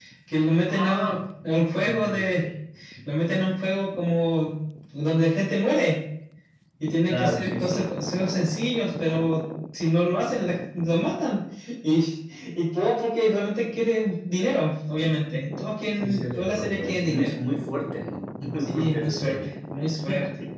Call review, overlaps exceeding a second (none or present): present